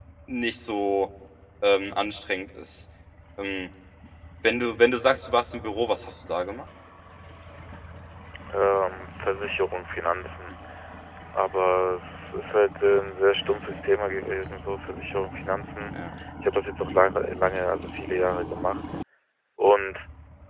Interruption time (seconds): none

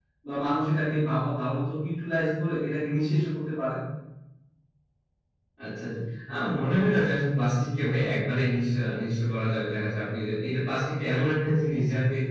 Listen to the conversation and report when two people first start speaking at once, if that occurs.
none

